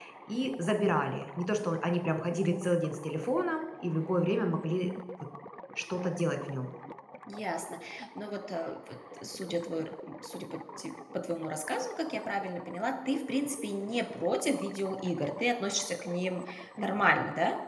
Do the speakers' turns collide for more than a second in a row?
No

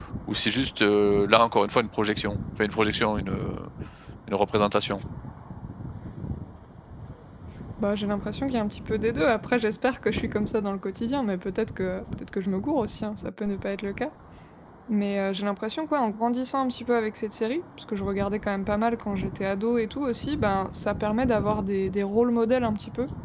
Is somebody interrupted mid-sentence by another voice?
No

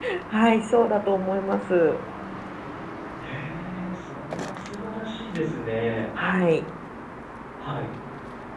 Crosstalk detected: No

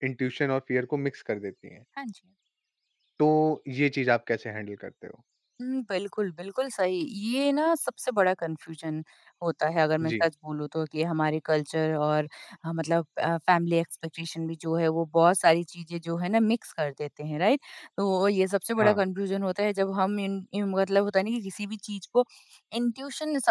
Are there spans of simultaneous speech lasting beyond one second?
No

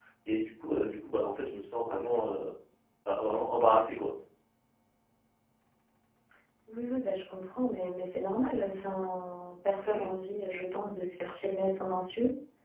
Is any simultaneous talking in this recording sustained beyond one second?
No

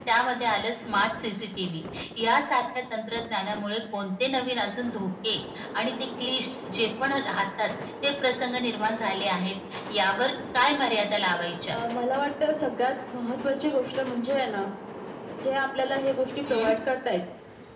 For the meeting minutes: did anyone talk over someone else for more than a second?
No

